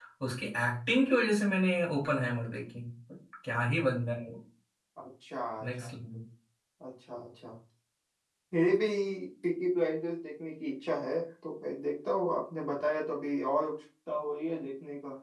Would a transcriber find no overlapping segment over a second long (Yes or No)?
Yes